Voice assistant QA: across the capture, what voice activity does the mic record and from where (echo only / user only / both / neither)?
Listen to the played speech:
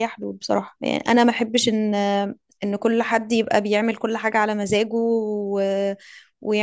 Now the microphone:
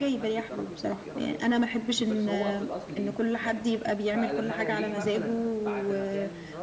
both